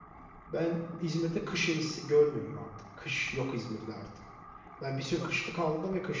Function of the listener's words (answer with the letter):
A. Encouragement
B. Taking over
A